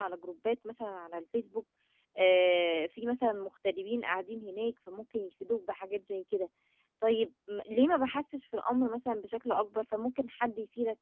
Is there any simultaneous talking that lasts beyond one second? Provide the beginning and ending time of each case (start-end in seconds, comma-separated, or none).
none